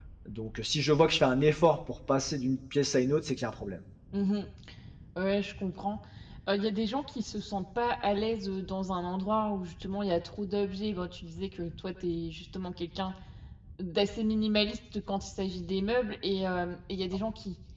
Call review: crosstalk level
none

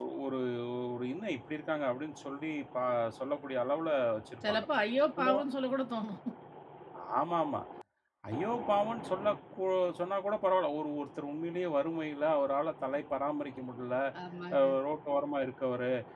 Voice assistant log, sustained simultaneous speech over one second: none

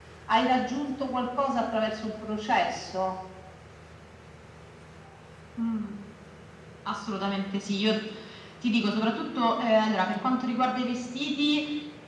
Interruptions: none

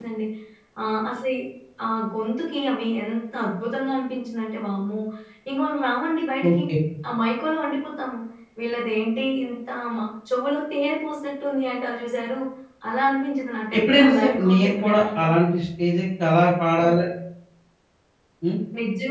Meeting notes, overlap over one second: present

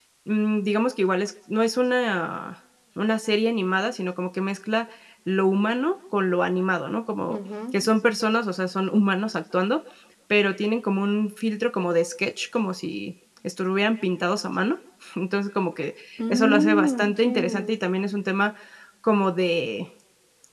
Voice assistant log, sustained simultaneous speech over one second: present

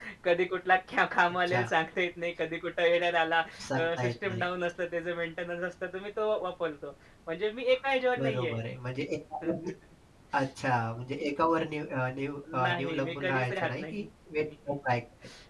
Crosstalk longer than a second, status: present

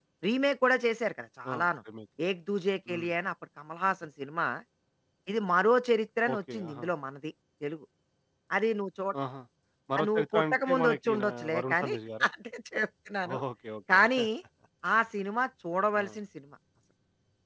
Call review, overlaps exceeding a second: present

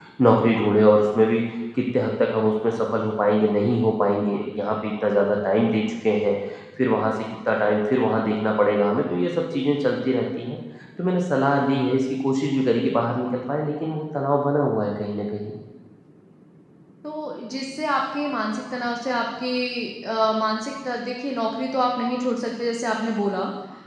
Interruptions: none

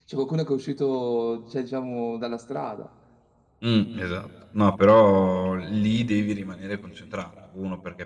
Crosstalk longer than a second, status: none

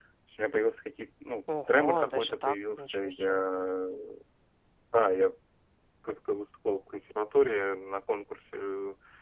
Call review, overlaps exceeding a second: present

